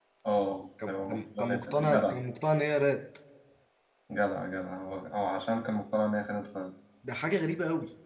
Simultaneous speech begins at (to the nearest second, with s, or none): 1 s